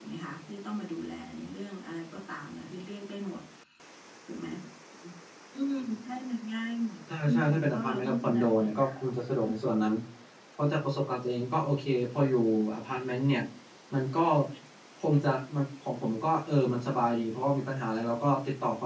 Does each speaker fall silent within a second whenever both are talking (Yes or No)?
No